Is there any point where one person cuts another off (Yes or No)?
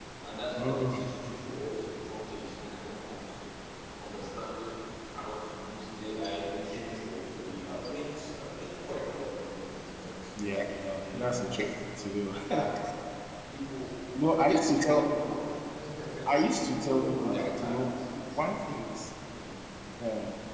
Yes